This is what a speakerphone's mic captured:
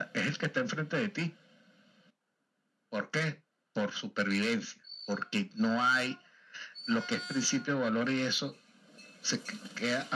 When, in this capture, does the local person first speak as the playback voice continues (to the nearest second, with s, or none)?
none